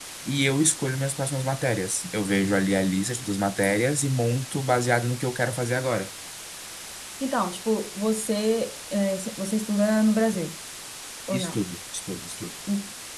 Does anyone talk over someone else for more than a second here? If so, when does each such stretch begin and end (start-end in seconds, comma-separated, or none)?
none